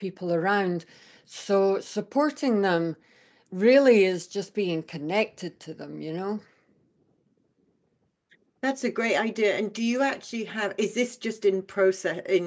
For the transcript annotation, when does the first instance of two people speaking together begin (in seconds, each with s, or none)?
none